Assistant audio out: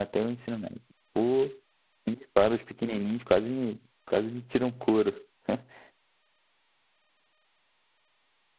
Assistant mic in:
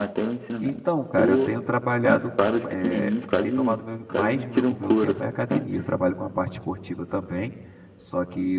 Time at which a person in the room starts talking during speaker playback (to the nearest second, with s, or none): 1 s